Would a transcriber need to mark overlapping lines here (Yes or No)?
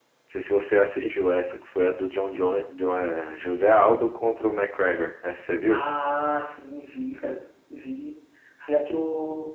No